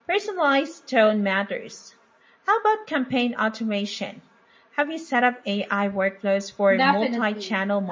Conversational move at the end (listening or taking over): taking over